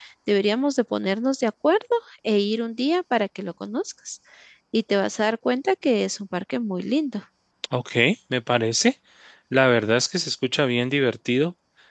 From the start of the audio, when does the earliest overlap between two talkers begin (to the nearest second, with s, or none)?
none